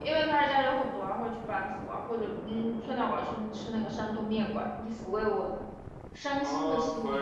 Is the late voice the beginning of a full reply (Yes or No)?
Yes